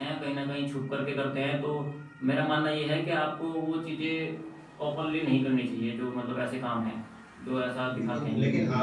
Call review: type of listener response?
taking over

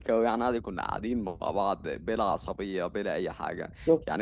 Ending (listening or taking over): listening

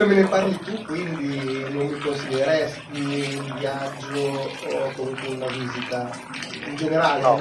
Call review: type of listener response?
listening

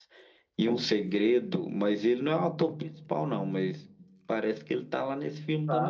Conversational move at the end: taking over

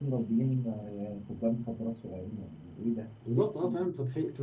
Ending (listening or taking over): taking over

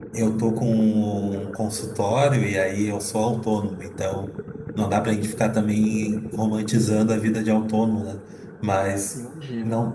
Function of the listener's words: listening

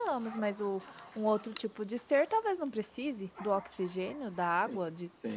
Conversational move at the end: taking over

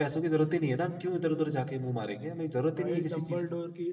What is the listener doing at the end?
taking over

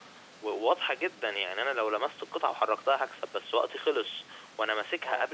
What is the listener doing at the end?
listening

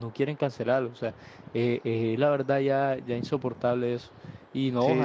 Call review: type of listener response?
listening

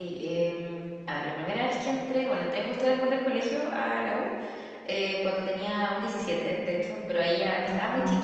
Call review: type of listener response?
listening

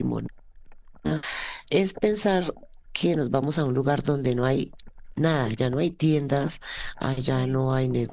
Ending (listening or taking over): listening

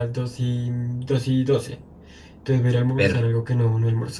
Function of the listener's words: listening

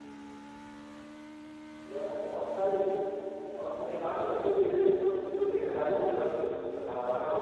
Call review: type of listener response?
listening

